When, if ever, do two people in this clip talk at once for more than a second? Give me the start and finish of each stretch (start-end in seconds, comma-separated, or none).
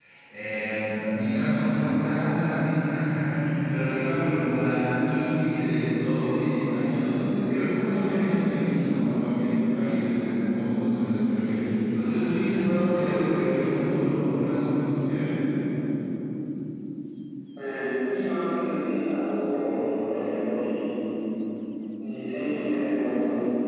none